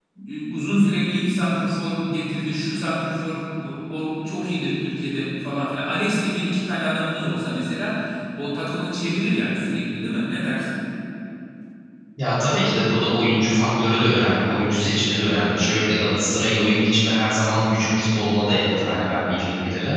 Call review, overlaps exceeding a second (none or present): none